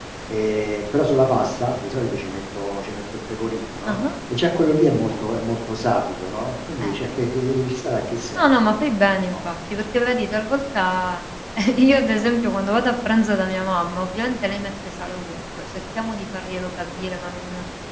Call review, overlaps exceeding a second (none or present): none